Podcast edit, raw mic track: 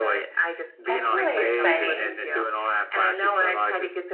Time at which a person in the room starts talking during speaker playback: 0.8 s

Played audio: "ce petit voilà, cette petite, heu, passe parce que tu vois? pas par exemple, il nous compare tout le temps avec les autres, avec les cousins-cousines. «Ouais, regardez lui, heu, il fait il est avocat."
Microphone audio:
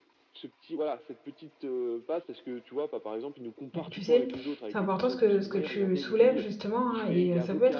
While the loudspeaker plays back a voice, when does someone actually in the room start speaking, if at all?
3.7 s

